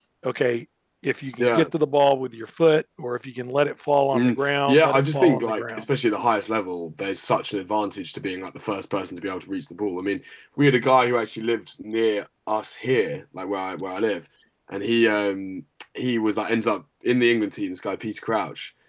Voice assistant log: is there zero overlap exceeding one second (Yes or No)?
No